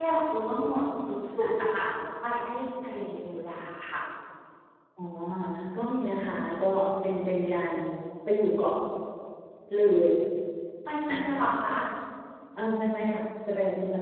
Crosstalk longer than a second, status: none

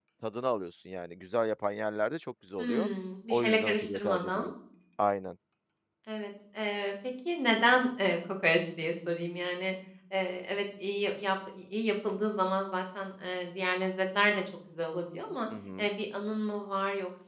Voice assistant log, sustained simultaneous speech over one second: present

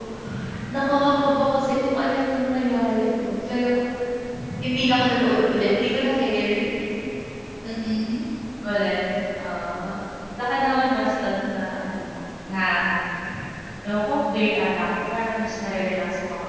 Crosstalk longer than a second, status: none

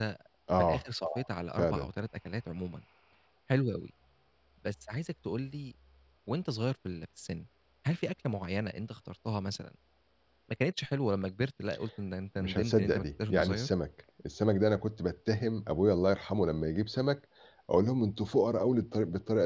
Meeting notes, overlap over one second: present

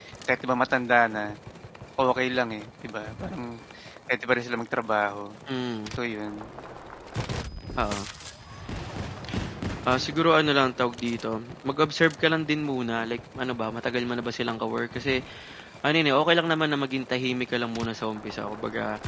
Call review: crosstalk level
none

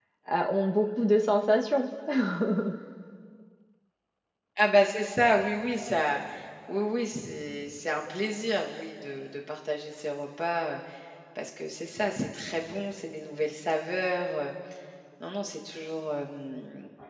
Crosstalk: none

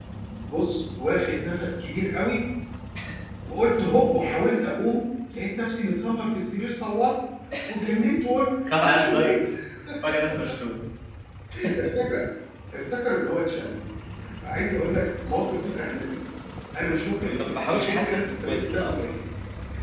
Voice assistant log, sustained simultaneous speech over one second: present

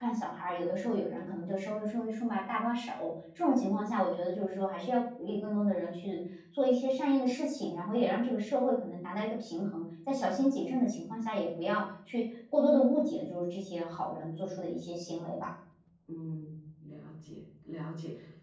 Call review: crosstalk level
none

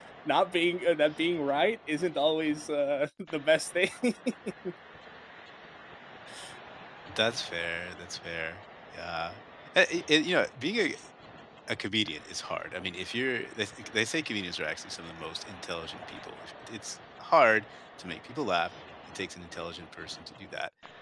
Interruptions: none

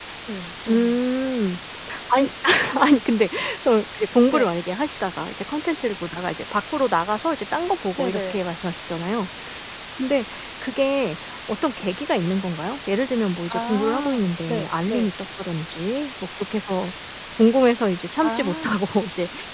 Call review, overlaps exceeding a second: present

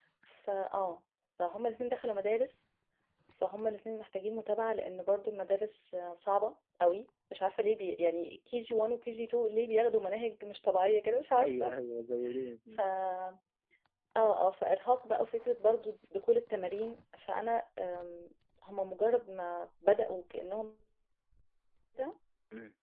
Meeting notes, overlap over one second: none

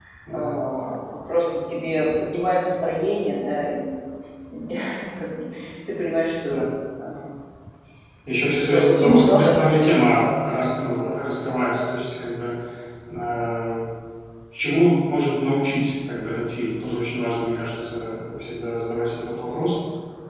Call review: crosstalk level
present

